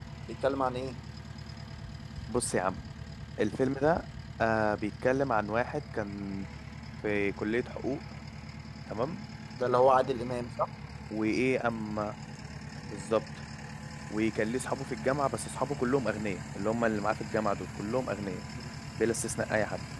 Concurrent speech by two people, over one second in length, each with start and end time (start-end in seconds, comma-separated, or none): none